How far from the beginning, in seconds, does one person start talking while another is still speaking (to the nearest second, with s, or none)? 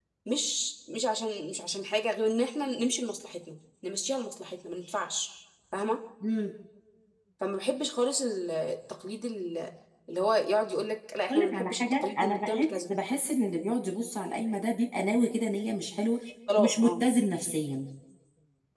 11 s